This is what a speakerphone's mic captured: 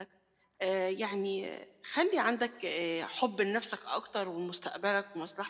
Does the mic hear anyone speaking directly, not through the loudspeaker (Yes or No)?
Yes